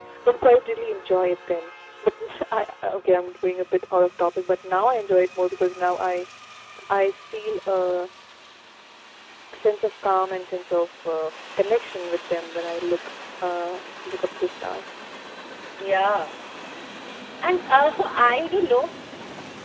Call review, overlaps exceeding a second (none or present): none